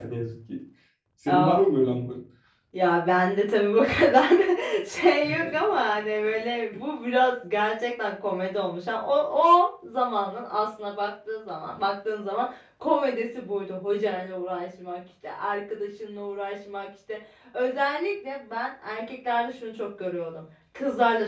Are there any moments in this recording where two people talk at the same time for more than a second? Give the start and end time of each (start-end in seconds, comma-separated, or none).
none